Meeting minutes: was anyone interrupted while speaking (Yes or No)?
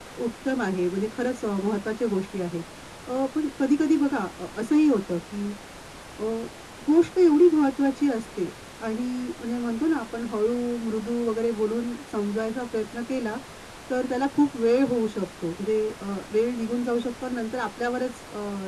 No